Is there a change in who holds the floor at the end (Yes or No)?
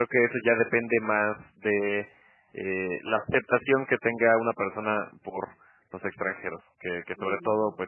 No